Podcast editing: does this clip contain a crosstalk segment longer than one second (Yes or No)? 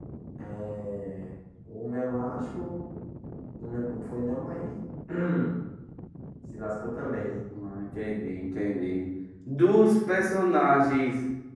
No